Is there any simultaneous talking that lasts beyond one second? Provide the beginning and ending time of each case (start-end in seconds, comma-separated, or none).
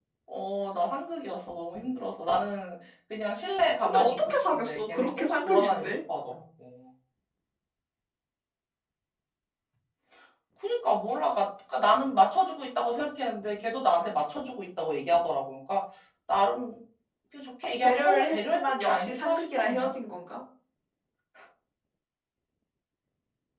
3.8-5.9, 17.8-20.0